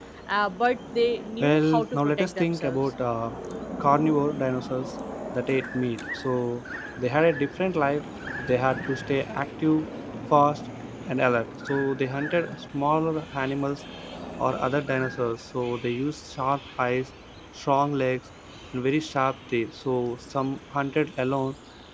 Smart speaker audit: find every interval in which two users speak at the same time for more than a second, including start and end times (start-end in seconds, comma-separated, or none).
1.4-2.8